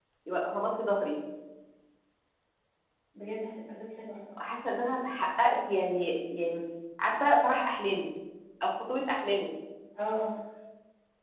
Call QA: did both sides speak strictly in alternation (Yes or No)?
Yes